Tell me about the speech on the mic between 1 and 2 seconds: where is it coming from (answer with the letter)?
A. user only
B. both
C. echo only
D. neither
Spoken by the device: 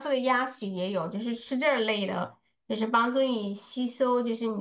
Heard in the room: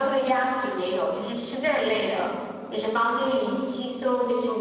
C